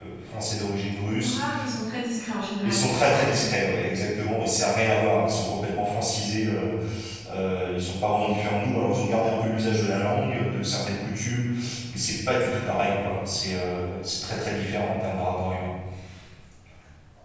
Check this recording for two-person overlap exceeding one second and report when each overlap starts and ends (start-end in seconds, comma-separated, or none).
none